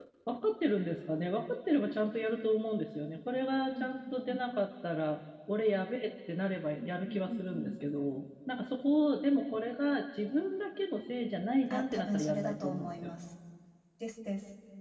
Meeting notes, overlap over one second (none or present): present